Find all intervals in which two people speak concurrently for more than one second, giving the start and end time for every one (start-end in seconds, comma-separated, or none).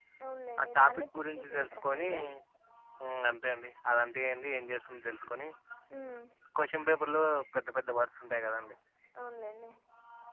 0.6-2.1